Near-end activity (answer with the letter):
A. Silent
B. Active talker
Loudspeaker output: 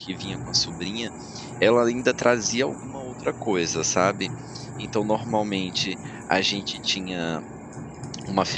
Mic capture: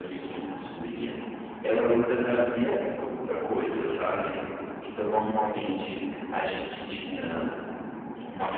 A